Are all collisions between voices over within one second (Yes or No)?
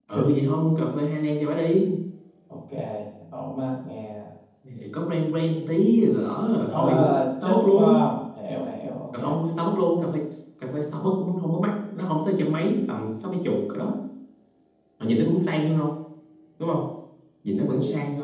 No